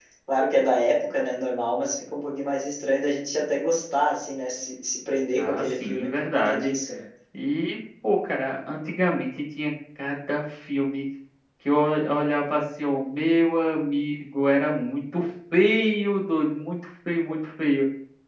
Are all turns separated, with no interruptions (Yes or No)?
No